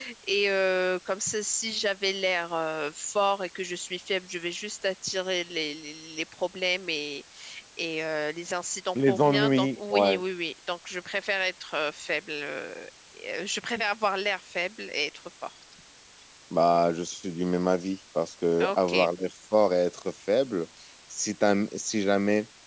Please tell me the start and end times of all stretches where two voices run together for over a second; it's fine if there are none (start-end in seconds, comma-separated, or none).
9.0-10.2